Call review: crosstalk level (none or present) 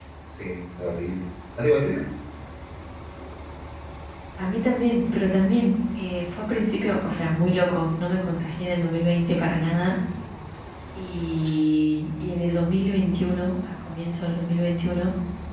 none